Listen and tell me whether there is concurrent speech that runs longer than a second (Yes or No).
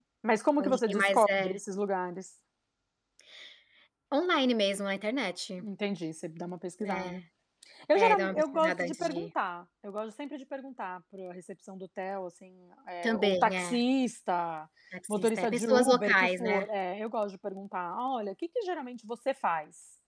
Yes